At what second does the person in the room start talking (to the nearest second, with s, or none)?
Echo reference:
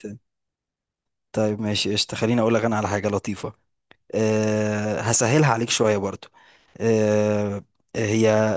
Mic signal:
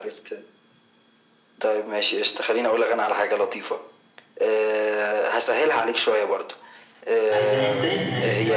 7 s